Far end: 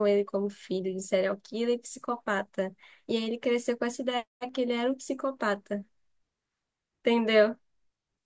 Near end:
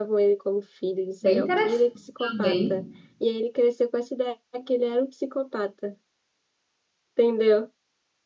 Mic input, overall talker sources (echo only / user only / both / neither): both